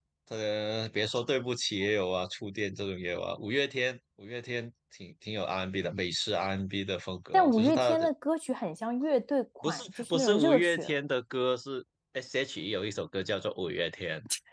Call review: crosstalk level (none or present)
present